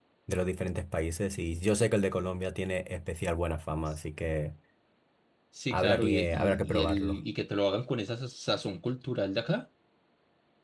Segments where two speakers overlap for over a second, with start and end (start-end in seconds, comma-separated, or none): 5.7-7.2